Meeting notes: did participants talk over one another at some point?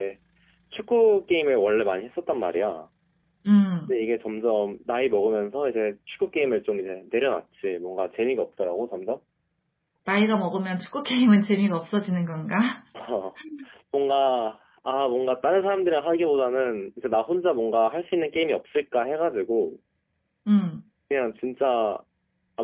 No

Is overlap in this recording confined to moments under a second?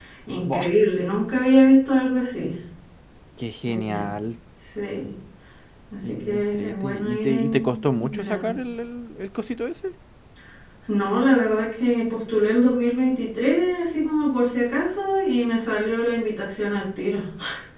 No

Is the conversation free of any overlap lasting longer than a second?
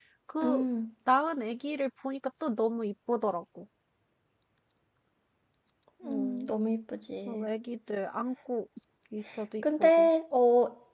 Yes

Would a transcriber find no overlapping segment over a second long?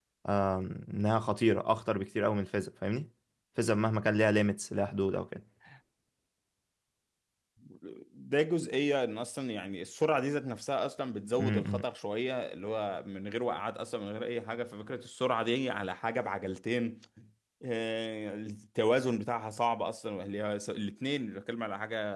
Yes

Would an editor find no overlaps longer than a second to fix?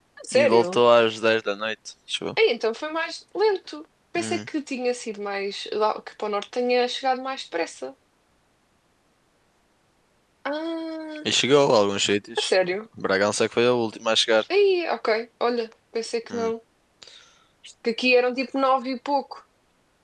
Yes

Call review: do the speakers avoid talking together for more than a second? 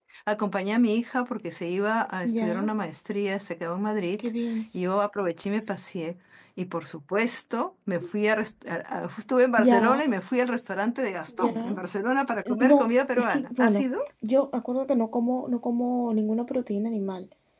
No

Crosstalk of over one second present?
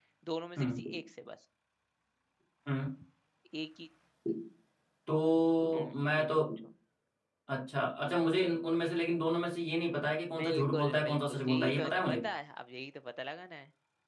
Yes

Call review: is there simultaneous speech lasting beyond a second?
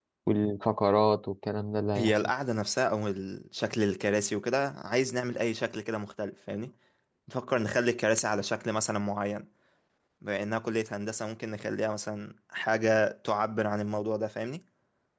No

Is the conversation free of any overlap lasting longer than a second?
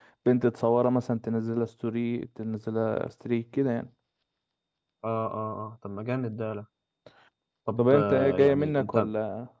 No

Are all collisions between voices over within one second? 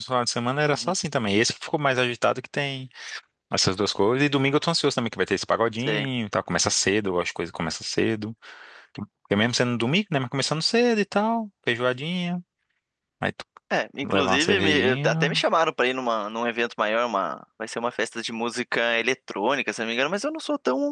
No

